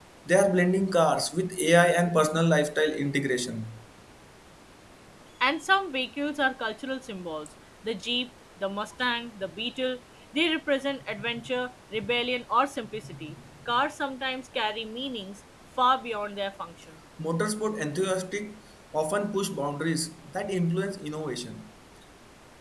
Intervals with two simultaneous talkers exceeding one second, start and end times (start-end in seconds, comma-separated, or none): none